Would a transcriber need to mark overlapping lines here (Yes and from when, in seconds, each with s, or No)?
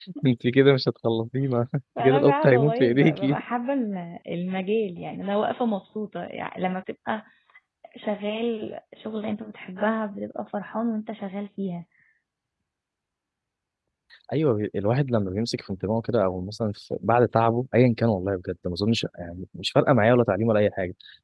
Yes, from 2.0 s